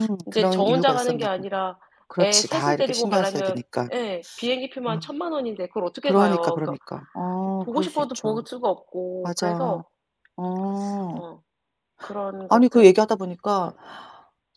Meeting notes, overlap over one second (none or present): present